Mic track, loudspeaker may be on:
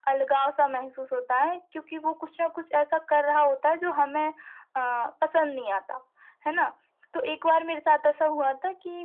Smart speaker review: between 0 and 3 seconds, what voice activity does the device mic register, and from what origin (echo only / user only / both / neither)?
echo only